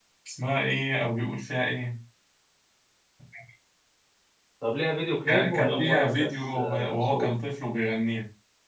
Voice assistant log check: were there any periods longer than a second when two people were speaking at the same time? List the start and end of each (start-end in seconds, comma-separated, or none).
5.3-7.3